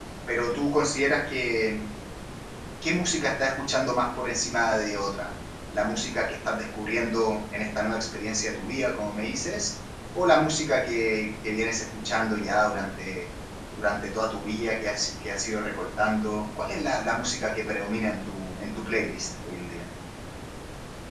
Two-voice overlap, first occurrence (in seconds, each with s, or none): none